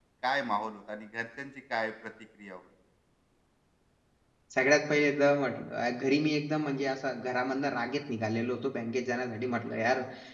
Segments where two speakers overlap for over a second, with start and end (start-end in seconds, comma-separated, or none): none